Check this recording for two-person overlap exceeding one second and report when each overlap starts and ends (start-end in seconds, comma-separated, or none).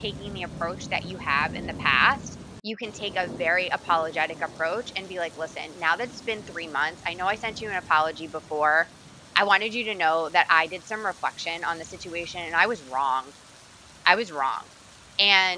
none